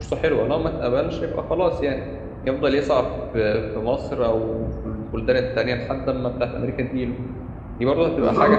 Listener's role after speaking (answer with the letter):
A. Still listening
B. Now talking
B